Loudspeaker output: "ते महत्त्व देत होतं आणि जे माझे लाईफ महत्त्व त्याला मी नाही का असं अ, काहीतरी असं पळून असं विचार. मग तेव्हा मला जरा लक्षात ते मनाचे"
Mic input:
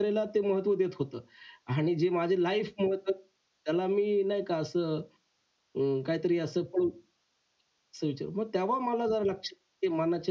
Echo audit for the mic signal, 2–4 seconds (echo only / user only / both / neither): echo only